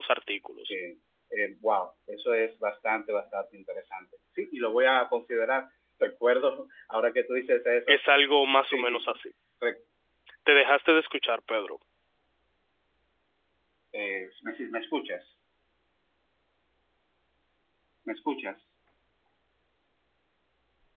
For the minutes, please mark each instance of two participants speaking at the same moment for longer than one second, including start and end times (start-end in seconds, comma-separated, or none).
none